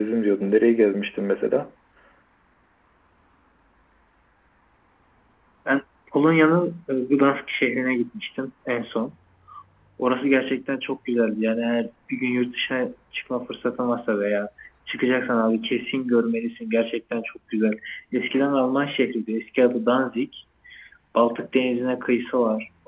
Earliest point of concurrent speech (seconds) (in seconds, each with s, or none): none